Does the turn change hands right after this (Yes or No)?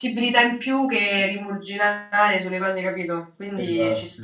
Yes